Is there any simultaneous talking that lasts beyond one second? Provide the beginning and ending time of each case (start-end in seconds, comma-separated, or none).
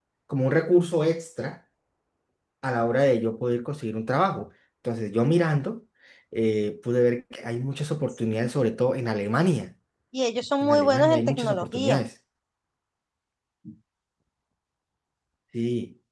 10.6-12.0